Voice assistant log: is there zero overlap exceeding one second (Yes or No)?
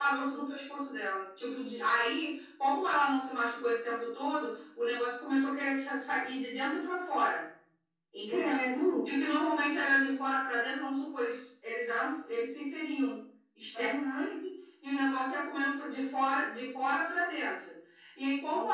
Yes